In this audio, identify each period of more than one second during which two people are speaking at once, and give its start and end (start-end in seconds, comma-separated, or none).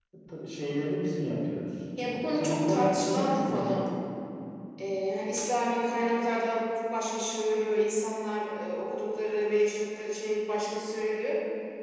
2.4-3.8